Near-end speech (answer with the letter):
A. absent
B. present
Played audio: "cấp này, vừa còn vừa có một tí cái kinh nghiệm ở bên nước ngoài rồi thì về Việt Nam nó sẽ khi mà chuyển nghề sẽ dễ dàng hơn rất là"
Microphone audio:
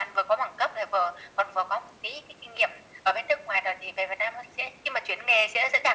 A